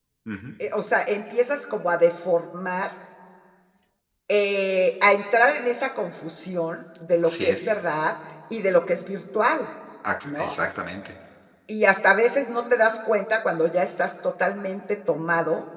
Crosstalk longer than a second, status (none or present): none